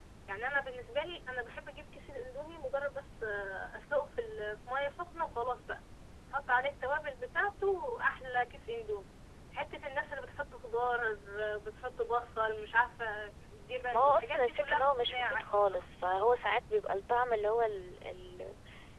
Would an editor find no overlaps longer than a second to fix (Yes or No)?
No